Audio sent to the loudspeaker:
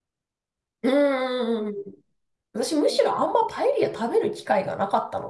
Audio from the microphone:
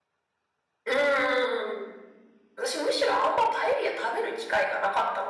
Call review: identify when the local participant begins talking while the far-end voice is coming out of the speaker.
none

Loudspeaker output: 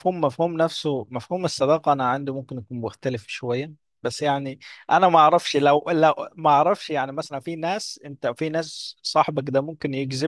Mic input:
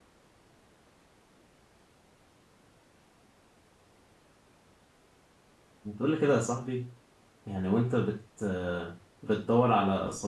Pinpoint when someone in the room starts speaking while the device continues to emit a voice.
6 s

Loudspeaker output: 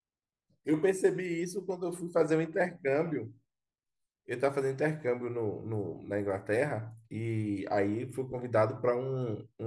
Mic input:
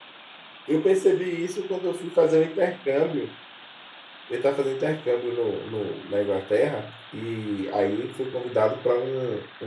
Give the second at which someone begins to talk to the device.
none

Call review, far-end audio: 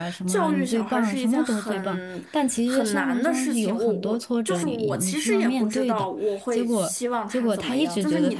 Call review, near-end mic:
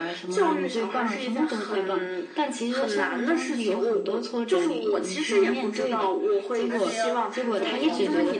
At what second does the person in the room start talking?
5 s

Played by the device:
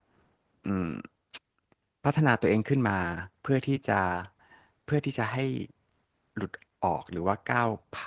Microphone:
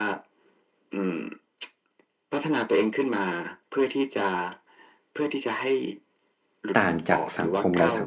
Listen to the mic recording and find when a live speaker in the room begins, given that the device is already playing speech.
7 s

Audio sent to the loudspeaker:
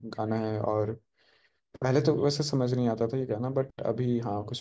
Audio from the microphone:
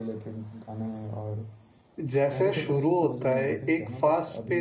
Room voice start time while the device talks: 2 s

